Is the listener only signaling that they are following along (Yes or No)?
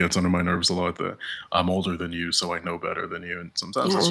No